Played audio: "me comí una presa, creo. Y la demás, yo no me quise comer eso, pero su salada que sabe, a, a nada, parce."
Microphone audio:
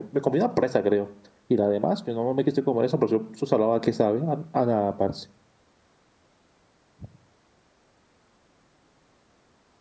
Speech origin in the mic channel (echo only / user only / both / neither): echo only